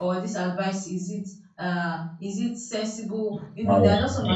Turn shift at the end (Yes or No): No